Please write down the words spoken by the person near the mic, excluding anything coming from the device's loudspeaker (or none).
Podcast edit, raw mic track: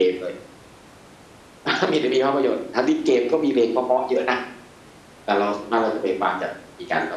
none